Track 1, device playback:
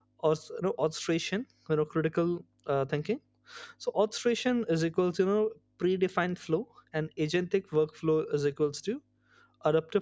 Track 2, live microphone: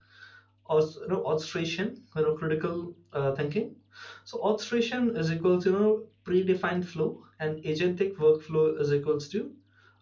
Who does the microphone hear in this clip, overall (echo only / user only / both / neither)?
echo only